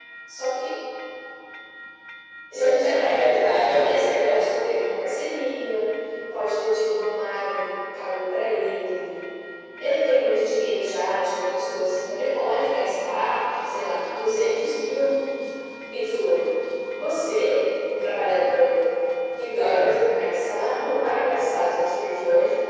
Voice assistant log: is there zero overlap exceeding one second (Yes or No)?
No